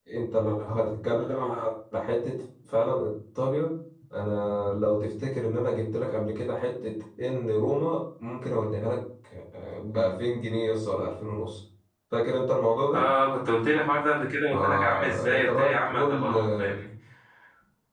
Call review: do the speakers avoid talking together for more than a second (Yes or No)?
No